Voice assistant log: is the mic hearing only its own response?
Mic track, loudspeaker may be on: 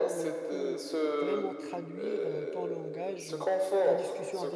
No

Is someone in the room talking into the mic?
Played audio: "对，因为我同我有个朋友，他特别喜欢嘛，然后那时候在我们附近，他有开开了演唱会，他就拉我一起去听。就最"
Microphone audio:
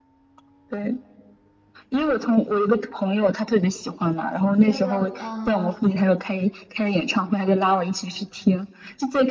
Yes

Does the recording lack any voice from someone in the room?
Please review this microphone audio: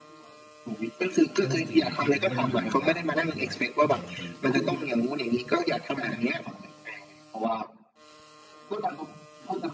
No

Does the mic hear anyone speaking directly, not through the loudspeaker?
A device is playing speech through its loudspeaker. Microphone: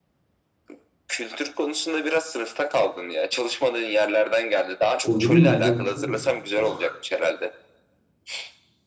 Yes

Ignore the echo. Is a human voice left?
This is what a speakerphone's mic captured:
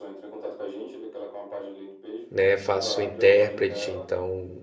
Yes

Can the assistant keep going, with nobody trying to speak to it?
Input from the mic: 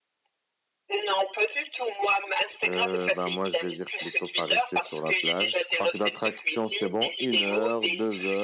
No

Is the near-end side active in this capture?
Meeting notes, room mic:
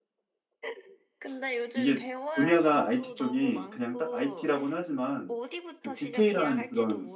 Yes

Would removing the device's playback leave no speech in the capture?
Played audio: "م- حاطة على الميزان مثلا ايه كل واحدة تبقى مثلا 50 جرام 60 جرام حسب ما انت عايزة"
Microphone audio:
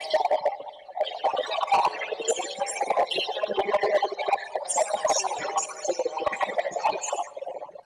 Yes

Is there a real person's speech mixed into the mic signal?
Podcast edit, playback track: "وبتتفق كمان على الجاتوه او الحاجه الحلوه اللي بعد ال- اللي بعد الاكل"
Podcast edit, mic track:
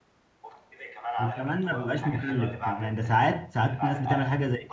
Yes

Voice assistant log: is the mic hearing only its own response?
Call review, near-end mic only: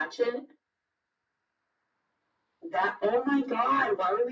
Yes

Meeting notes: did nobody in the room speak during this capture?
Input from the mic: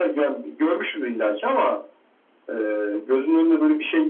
Yes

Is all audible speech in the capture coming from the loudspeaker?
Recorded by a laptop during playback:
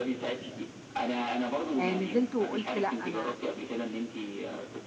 No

